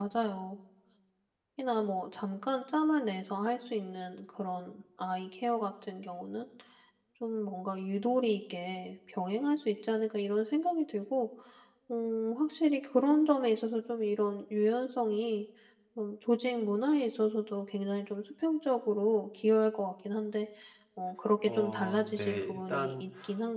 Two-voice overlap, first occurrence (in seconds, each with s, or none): 21.5 s